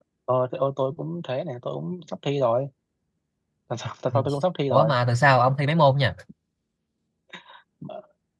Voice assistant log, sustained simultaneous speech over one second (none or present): none